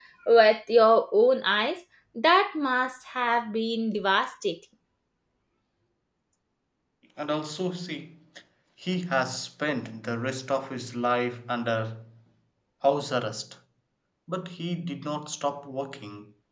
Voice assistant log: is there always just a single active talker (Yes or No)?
Yes